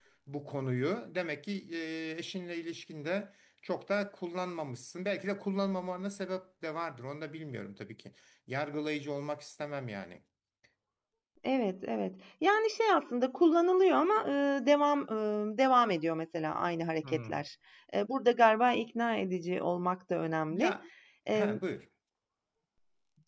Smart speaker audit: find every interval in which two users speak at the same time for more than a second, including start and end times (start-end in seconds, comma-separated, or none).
none